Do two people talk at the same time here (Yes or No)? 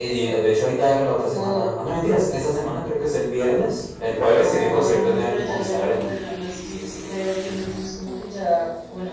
Yes